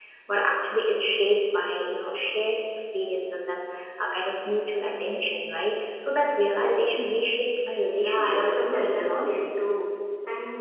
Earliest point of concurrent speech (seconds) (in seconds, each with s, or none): 8.0 s